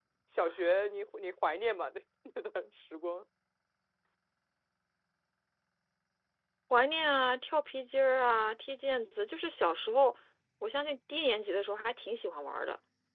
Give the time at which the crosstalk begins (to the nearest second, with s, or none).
none